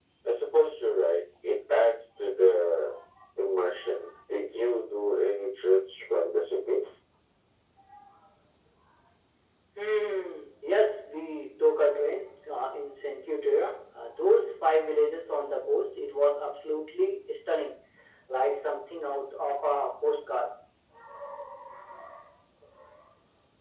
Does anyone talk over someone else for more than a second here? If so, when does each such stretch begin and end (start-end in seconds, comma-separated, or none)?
none